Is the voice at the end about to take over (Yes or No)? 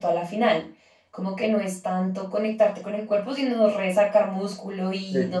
Yes